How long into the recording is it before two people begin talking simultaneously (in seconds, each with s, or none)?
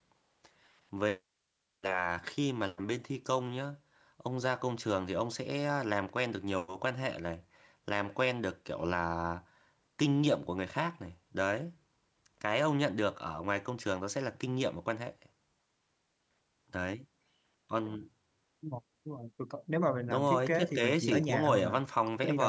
20.1 s